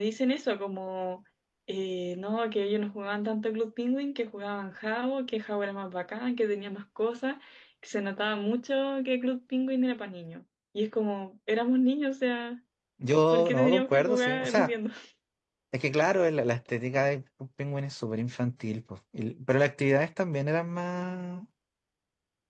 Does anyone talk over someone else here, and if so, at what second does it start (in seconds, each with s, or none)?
13.3 s